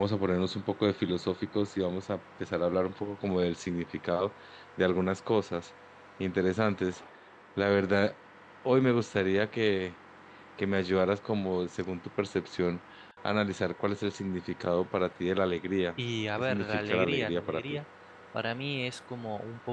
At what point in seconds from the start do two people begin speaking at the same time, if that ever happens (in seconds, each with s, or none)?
16.4 s